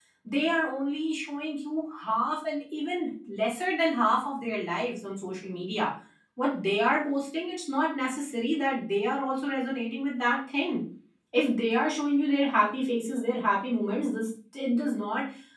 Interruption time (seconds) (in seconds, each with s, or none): none